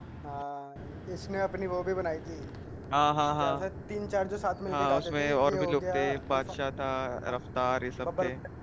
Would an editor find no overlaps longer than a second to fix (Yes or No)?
No